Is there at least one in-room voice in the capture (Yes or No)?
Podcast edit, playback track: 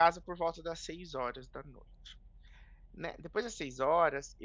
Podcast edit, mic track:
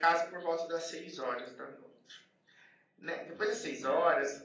Yes